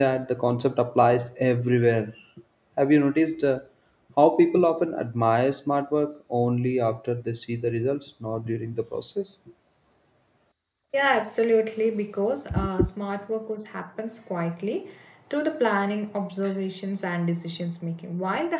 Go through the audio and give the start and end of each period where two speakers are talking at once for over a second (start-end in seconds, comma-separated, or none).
none